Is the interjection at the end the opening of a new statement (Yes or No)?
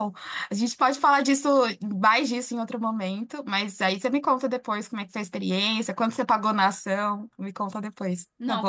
Yes